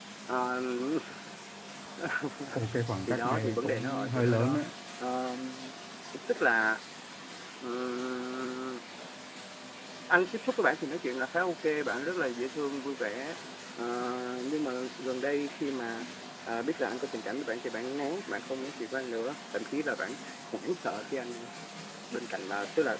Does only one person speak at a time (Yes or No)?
No